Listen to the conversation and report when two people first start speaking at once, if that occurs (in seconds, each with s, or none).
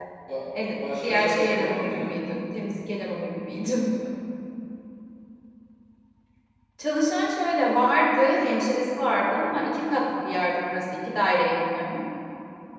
0.7 s